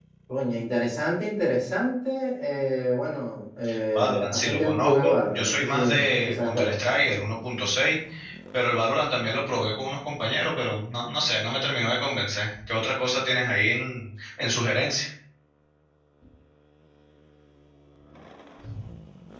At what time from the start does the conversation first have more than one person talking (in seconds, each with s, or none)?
3.9 s